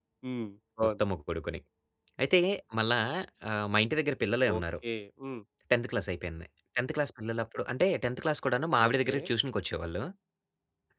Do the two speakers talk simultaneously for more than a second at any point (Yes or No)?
No